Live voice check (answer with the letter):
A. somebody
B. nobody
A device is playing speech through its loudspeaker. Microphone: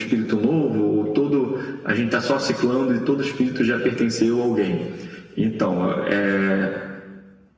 B